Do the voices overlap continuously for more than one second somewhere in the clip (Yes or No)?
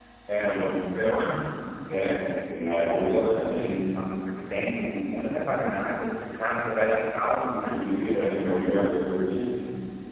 No